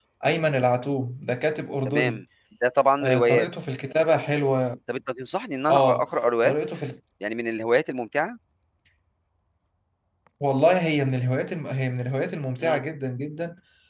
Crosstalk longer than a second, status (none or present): none